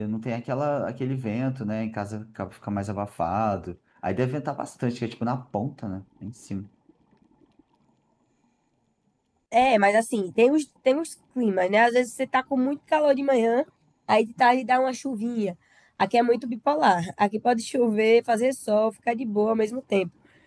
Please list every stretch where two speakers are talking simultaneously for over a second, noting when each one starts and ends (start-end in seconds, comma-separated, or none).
none